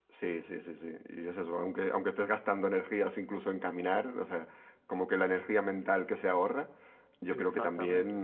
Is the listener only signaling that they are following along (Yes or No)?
Yes